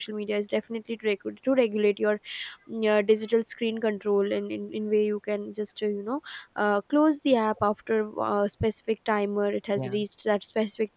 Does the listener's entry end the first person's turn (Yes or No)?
No